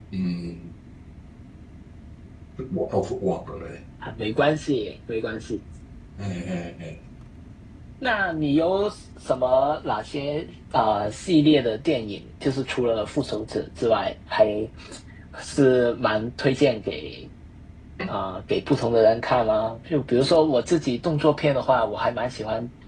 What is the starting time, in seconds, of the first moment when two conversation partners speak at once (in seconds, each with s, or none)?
none